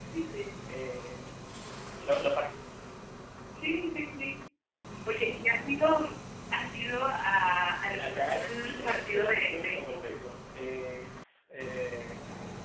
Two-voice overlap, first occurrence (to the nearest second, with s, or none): 8 s